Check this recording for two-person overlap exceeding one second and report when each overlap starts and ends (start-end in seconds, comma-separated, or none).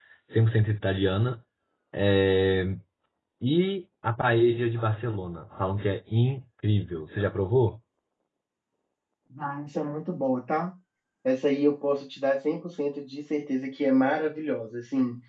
none